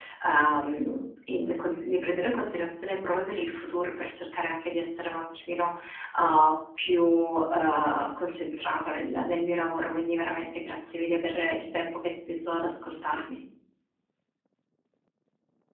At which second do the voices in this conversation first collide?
none

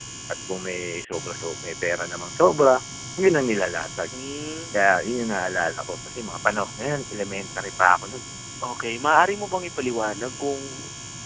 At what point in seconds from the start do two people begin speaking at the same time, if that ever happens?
none

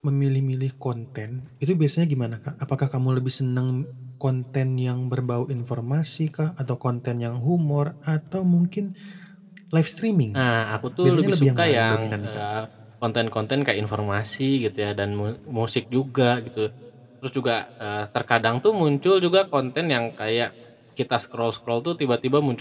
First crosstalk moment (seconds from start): 11.0 s

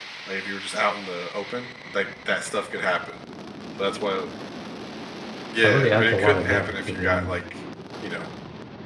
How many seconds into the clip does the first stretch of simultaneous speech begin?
5.6 s

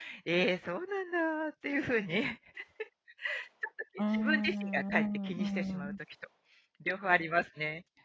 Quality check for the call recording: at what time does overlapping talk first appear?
4.1 s

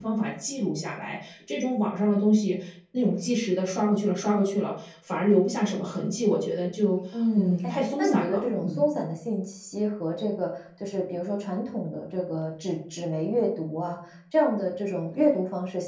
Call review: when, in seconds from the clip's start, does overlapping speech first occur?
7.4 s

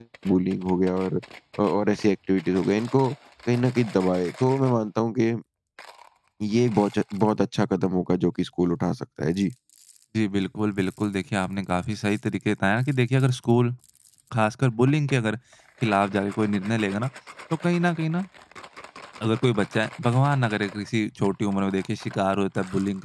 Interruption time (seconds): none

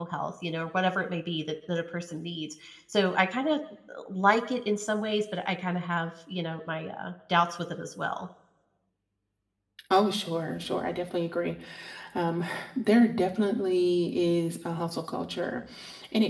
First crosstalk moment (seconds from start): none

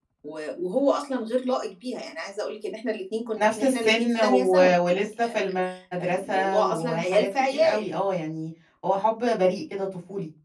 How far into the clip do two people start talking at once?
3.4 s

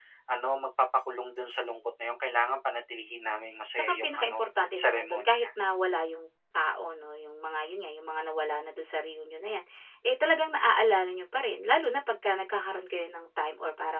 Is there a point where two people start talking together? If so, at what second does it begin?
3.8 s

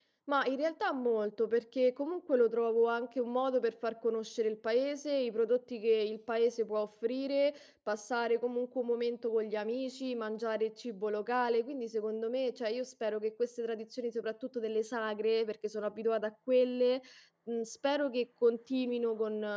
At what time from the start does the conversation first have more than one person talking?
none

